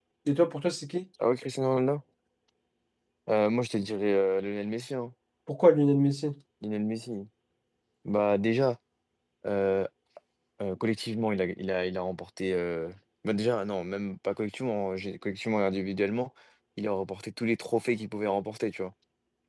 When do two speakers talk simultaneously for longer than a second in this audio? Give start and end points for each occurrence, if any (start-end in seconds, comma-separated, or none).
none